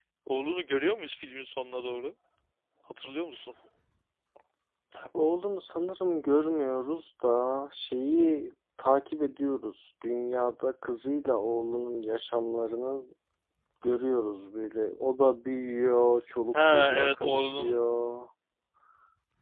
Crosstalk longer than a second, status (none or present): present